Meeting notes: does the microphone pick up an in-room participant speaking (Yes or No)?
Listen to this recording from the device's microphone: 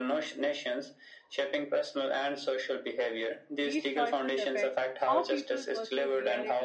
Yes